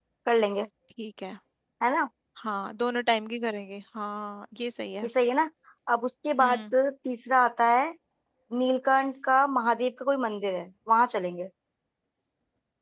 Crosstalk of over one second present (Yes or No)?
No